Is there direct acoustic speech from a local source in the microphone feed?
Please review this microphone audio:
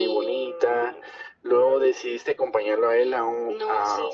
No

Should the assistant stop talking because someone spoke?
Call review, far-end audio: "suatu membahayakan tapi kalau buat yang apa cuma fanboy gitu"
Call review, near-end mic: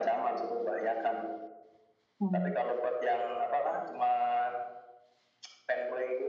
Yes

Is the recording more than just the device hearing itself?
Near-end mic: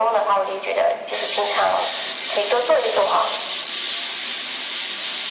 No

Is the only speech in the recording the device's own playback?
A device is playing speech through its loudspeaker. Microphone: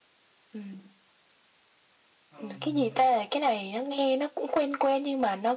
No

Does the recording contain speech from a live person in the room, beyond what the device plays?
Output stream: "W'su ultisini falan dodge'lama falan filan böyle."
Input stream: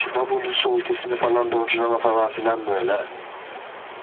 No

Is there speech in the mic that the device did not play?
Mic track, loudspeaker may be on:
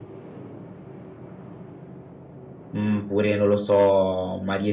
Yes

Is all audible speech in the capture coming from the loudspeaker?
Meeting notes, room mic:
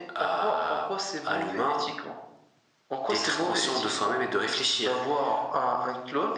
Yes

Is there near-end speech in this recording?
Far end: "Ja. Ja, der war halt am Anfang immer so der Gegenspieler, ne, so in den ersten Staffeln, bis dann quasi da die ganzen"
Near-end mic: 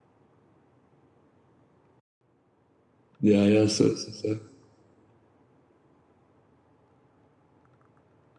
Yes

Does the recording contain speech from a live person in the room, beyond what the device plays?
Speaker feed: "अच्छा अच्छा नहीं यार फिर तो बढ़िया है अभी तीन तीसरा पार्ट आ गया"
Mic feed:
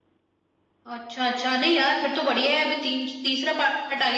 No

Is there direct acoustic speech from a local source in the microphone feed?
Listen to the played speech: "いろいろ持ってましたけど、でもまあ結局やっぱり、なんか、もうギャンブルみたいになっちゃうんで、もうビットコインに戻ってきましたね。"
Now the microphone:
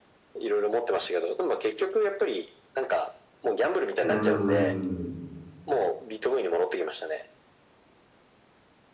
Yes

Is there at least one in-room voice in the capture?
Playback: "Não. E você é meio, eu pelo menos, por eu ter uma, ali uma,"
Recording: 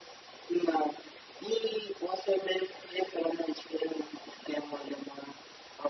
No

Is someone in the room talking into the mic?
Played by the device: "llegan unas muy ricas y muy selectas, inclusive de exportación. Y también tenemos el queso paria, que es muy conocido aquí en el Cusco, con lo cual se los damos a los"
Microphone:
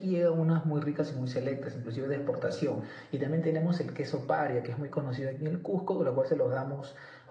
No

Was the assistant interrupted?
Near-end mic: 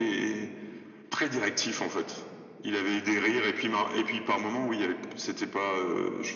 No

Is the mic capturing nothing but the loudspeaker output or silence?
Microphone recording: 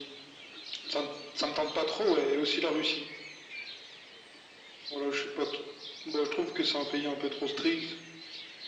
Yes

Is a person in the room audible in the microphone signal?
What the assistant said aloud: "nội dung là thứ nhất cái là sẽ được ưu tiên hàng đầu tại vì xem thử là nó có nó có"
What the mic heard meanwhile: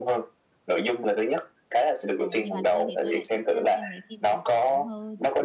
Yes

